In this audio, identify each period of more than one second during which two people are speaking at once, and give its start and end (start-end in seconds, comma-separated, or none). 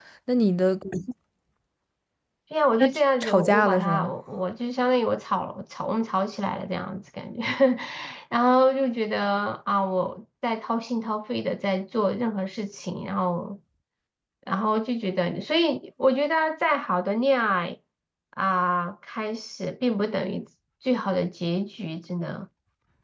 2.8-4.1